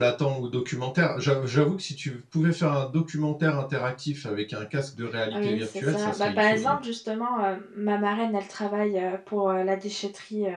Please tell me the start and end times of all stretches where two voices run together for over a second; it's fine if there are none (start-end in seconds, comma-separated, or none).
5.3-6.8